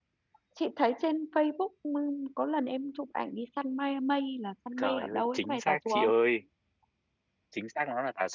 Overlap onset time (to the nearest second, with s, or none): 5 s